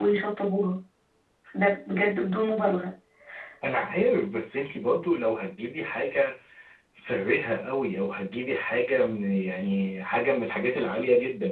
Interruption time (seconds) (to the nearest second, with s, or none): none